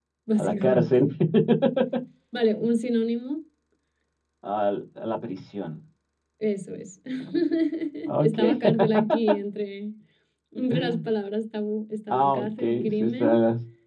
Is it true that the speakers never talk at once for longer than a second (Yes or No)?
No